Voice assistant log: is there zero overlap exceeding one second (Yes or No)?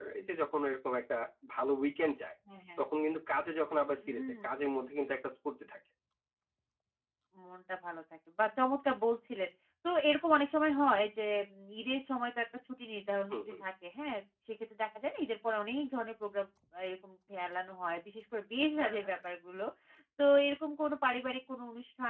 Yes